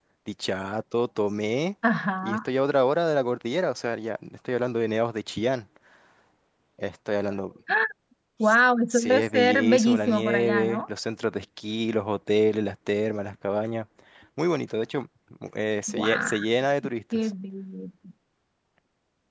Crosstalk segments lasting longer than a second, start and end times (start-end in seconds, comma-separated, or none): 8.9-10.8